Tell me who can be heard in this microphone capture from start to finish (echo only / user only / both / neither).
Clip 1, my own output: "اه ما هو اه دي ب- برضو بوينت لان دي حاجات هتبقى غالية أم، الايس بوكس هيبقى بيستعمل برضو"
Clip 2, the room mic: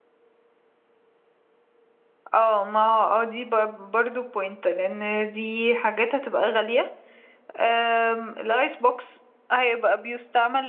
echo only